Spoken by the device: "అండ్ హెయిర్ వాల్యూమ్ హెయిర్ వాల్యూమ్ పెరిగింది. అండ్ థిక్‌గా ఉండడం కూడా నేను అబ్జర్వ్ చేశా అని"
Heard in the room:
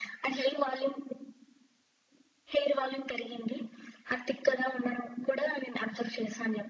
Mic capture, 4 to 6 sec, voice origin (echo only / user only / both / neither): echo only